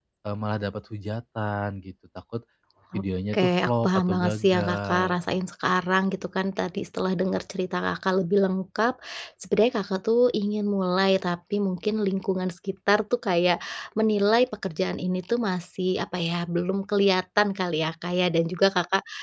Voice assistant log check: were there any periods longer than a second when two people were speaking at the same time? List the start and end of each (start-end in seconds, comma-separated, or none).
3.3-5.2